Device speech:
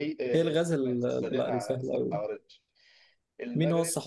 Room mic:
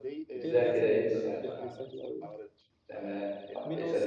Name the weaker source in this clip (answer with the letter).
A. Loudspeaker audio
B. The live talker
A